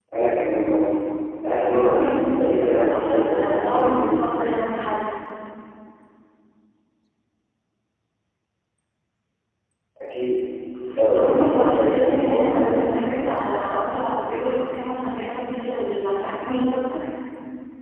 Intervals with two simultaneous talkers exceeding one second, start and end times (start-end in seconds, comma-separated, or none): 1.7-4.2, 11.1-13.4